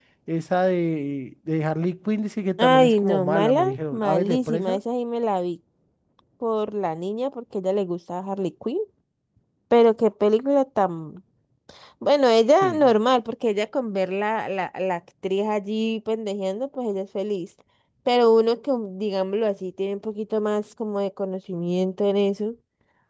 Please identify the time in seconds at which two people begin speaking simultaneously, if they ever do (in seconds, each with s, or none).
2.6 s